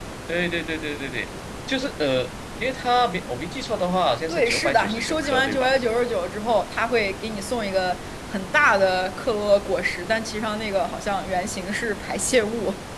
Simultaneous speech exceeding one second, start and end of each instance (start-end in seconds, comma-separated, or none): 4.3-5.7